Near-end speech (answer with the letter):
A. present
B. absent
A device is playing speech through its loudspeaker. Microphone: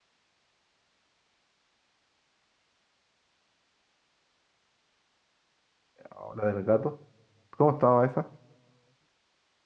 A